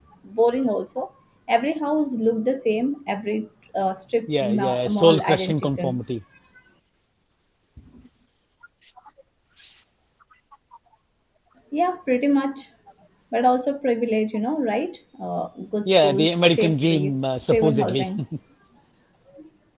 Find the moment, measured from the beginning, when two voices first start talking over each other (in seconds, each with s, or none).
4.3 s